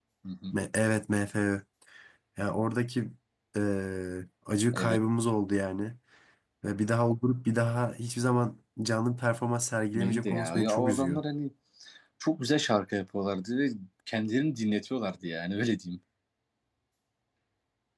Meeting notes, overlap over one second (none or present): present